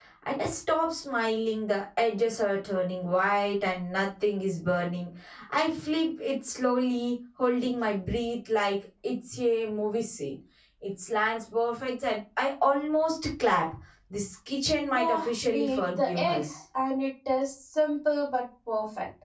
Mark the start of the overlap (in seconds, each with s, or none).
14.9 s